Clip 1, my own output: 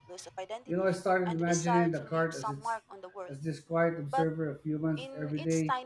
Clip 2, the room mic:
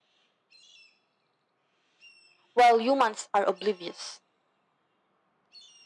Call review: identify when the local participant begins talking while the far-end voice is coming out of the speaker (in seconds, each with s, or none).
2.5 s